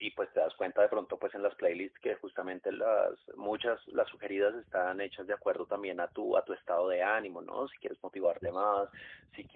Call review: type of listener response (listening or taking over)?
listening